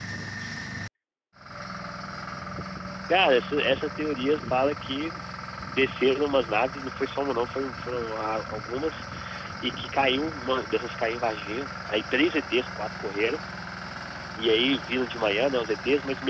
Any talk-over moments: No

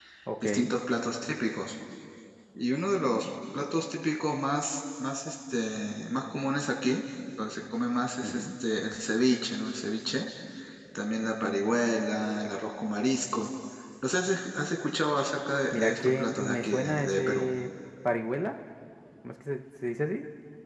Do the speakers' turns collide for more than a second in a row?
Yes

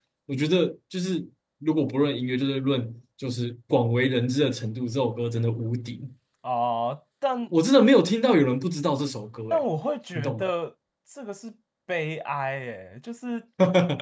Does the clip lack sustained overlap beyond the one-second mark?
Yes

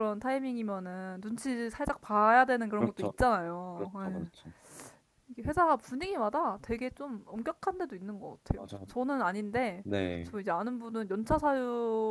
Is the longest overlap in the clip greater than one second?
No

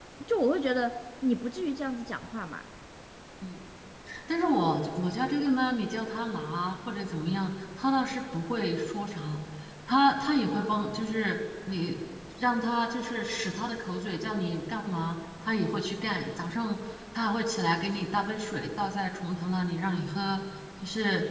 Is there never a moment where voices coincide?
Yes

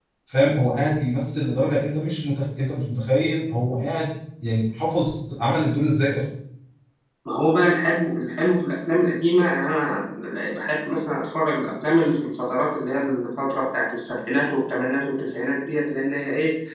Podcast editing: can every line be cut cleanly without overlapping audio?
Yes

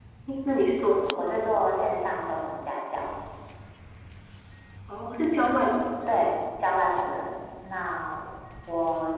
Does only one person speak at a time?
Yes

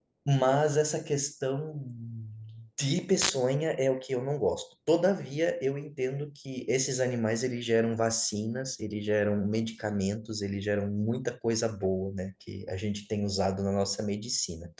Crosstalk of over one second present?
No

